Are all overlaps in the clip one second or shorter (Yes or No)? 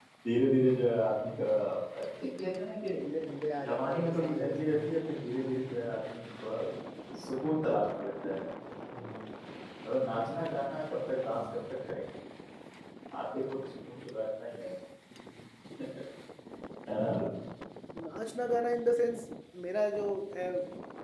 No